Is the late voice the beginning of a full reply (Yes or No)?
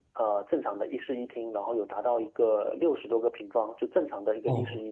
Yes